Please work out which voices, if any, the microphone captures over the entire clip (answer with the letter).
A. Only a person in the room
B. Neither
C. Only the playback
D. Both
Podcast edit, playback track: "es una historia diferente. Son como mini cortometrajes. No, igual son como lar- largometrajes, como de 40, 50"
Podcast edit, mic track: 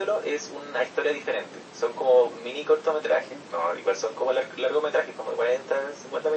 C